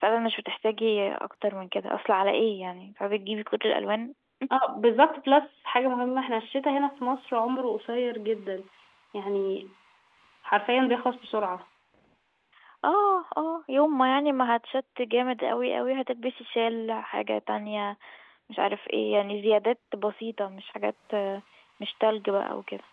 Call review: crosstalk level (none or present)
none